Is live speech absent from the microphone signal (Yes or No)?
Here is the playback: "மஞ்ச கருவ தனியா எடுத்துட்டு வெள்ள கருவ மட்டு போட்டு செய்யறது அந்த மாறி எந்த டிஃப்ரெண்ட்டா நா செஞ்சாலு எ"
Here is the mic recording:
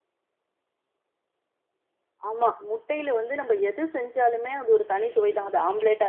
No